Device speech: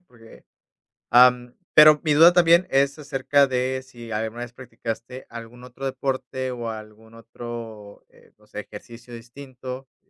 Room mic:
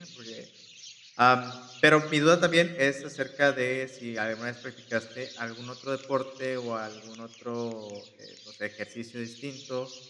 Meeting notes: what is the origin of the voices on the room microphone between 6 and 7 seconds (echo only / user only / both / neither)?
echo only